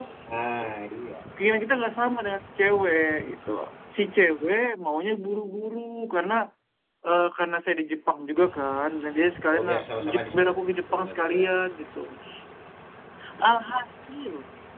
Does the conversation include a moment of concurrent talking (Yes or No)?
Yes